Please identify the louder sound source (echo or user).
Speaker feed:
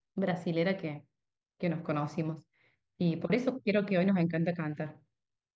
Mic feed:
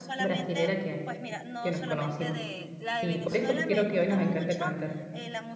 echo